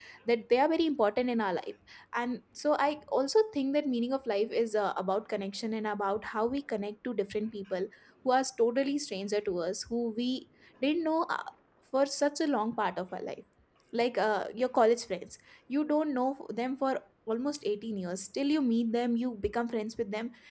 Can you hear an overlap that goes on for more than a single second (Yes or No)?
No